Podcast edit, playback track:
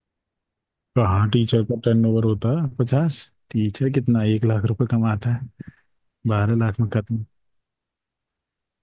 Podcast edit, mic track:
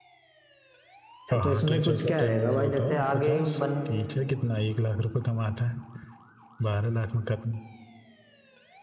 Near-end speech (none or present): present